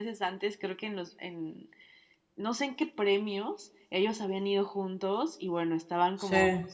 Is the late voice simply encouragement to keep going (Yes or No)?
Yes